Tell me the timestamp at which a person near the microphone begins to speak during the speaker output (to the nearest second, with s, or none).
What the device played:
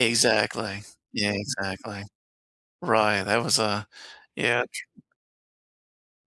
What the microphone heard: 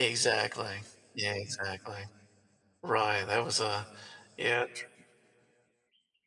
none